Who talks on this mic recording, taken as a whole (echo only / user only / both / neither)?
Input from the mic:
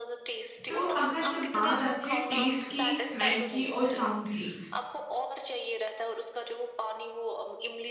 both